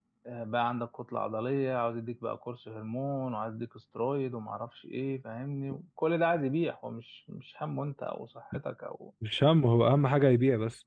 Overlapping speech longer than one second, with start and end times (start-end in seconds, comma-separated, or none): none